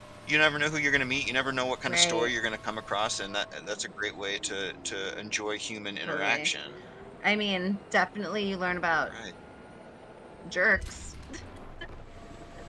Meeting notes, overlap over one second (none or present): none